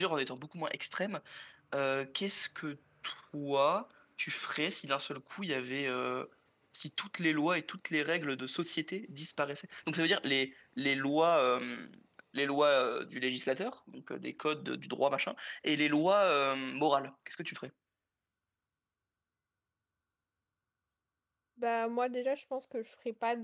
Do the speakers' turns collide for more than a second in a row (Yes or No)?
No